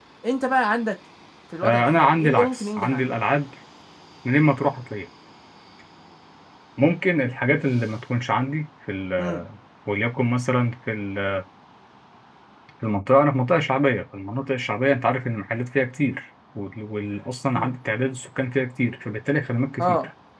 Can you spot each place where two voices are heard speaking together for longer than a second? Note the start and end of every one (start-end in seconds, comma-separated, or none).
1.6-3.1